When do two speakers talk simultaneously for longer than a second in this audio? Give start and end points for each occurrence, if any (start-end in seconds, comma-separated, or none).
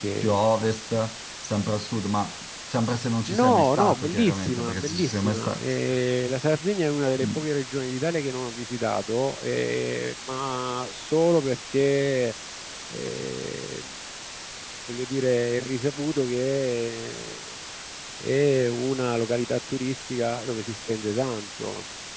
3.3-5.6